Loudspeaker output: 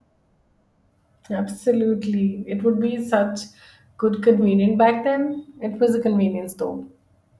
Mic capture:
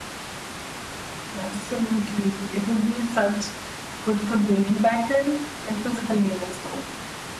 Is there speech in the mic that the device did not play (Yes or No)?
No